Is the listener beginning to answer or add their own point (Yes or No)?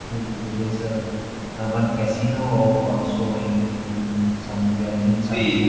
Yes